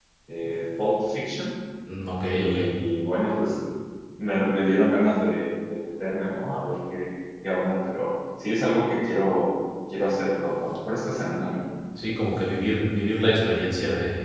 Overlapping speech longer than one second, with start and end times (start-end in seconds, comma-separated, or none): none